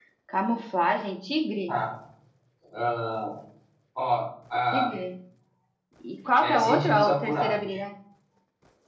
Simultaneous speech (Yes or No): Yes